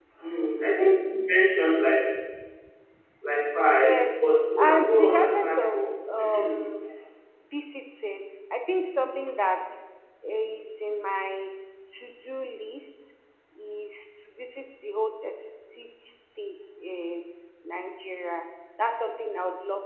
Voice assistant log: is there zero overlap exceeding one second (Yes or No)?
No